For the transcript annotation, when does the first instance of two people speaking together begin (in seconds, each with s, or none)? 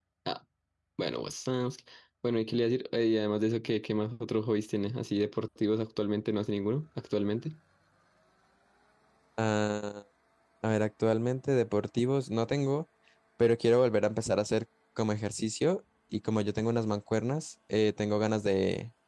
none